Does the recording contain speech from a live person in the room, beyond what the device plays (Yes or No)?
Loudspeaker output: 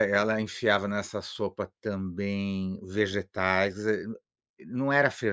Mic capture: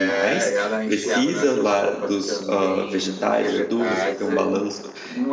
Yes